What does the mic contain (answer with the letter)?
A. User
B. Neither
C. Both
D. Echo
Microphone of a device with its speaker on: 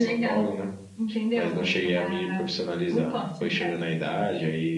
D